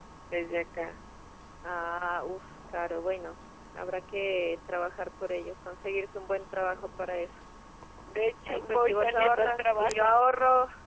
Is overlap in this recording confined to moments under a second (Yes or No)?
No